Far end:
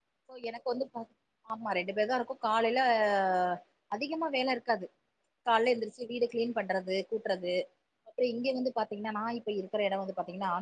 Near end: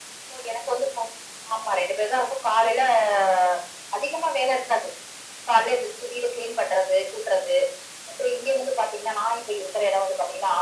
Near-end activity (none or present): none